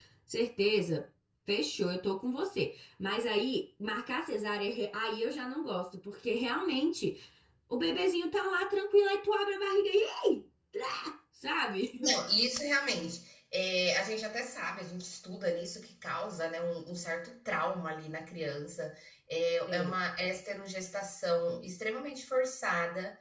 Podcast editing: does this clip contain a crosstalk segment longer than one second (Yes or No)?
No